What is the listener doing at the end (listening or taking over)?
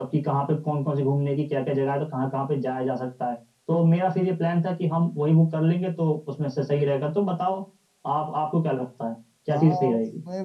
taking over